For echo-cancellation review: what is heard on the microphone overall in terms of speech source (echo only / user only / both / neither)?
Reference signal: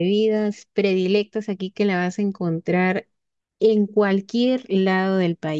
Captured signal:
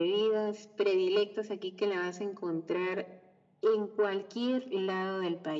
echo only